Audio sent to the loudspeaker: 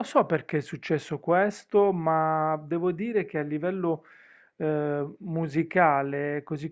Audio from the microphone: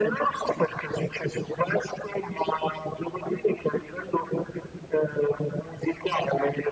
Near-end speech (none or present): none